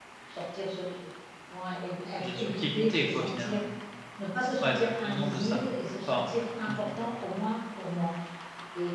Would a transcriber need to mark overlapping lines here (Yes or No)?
Yes